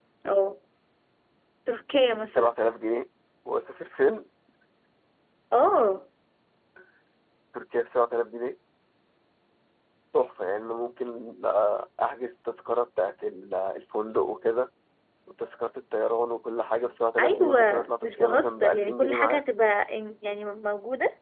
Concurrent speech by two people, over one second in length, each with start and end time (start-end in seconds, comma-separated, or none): 17.2-19.4